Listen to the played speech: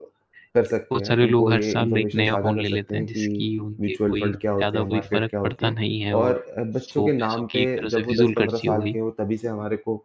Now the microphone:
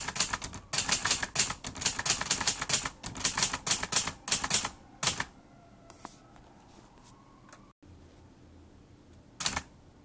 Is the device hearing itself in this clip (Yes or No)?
No